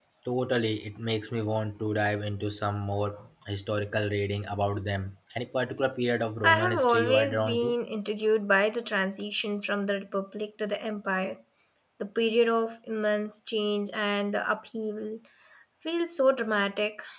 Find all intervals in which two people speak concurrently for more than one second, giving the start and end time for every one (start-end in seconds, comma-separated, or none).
6.4-7.7